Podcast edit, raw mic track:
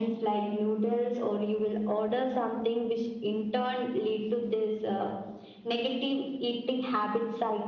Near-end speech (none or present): none